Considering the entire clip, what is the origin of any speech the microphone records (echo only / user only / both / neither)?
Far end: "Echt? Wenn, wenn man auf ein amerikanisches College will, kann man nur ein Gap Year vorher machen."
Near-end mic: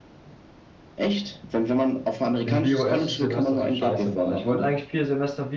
both